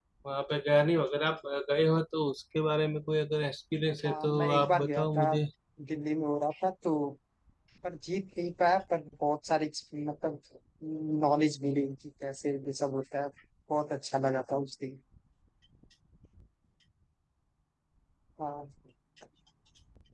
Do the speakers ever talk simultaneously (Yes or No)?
Yes